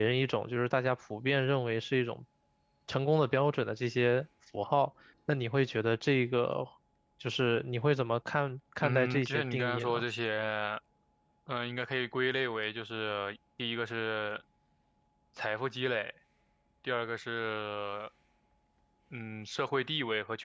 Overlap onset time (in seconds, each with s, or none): 8.8 s